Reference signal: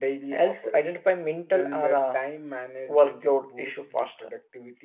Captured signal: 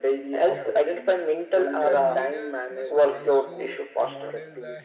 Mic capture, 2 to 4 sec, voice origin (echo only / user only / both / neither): both